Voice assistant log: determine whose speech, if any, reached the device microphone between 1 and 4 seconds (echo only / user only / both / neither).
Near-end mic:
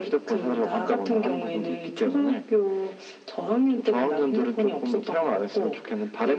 echo only